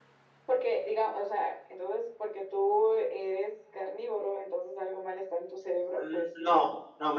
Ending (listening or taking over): taking over